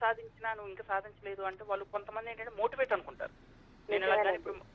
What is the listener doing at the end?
listening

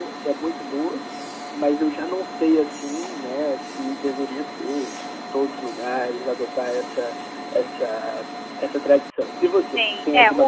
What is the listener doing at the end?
taking over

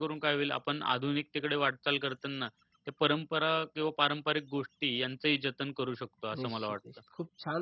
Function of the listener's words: taking over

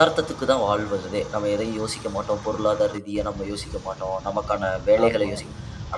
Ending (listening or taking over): listening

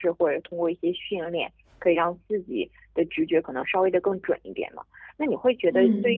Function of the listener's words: listening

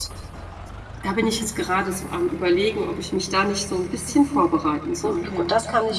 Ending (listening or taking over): taking over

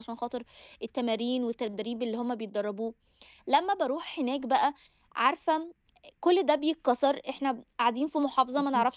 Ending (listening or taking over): listening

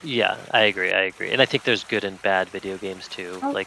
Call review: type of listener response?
listening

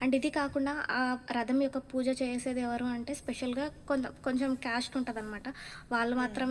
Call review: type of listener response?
listening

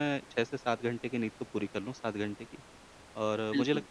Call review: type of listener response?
listening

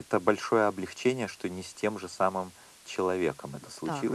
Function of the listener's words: taking over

